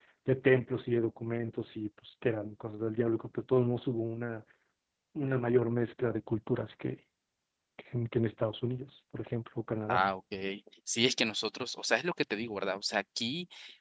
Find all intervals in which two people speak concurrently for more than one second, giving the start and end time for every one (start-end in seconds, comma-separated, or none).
none